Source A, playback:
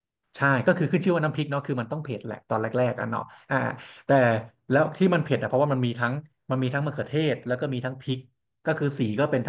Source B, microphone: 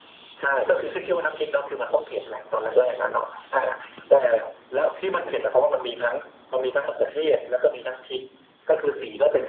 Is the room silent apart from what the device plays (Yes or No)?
Yes